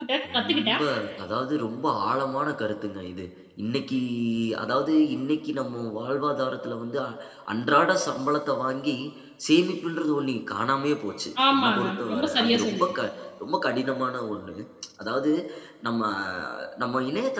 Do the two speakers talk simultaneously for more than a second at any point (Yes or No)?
Yes